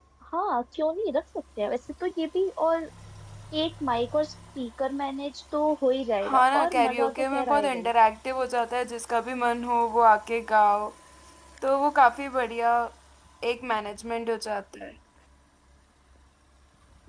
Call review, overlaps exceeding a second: present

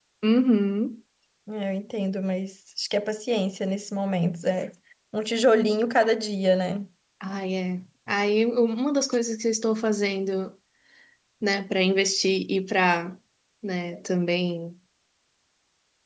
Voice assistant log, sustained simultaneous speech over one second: none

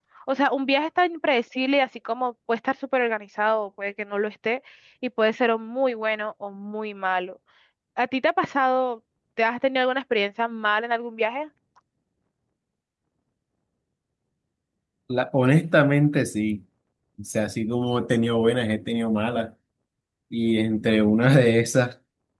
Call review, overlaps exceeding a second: none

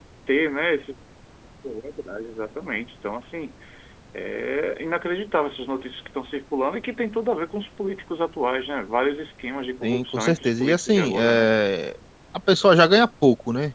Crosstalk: present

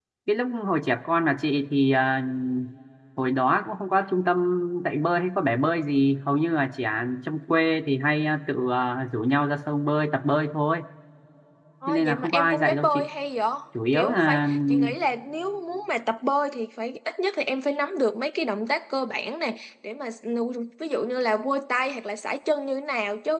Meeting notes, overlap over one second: present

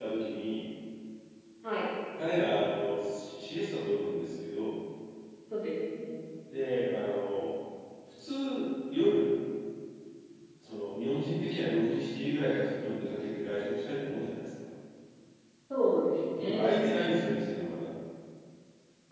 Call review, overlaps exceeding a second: none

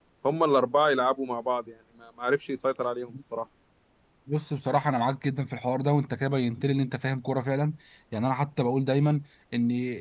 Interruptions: none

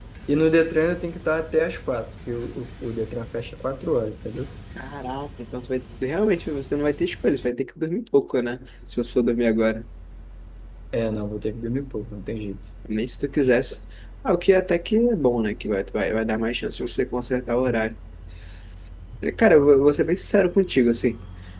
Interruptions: none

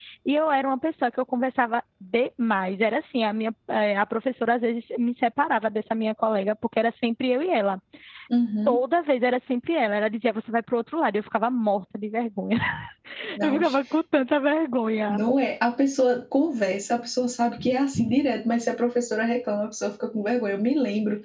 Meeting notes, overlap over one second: none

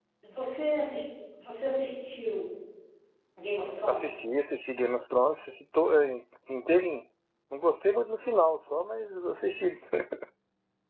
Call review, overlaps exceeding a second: none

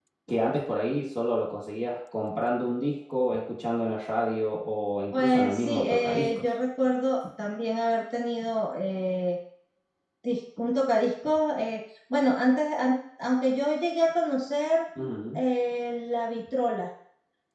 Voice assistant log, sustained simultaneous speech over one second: present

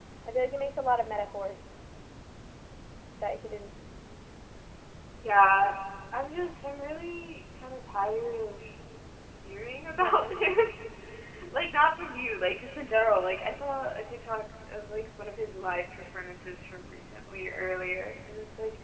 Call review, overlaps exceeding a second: none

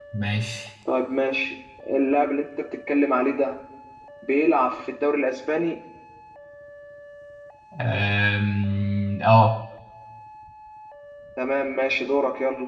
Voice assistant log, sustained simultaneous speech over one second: none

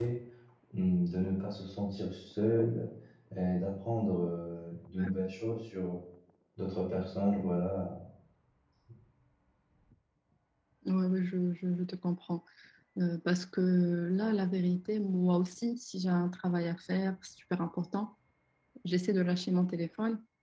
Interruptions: none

